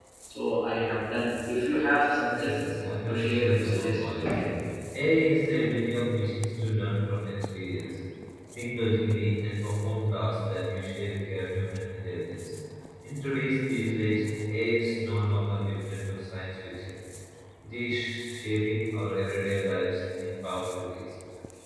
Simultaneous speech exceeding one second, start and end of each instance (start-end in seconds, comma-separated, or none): 3.1-4.4